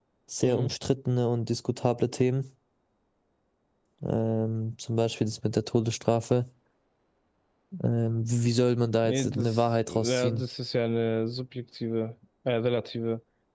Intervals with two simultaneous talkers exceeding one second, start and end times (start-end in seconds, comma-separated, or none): 9.0-10.4